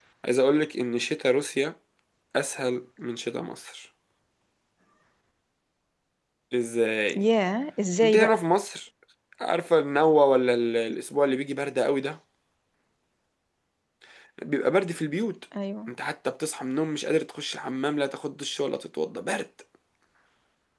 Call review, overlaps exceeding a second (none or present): none